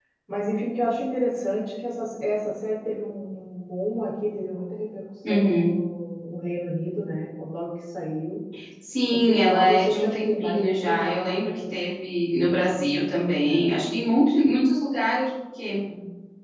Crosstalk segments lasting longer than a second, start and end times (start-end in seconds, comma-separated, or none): 9.1-11.6